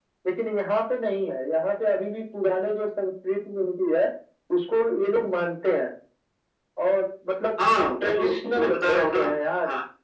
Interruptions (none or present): present